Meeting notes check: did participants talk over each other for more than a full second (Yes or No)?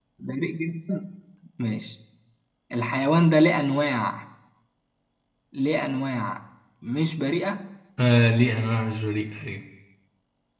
No